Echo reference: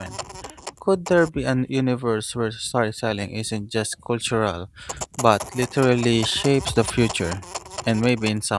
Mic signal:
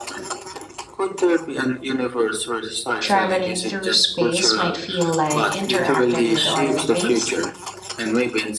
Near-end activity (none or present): present